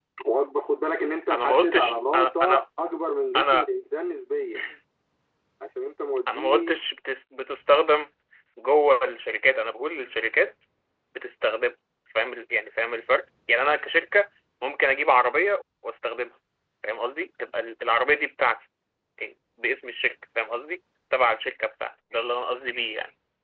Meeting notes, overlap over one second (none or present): present